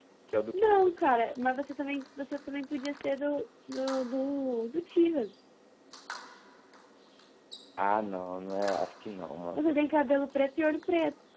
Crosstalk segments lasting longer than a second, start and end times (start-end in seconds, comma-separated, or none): none